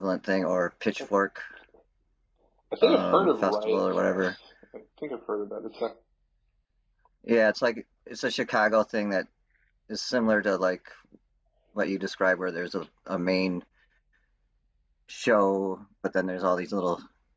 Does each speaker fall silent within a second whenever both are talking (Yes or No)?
No